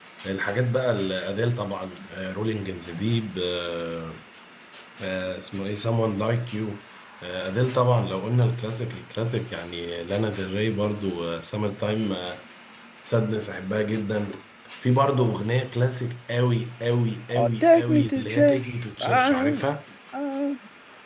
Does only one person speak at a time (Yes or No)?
No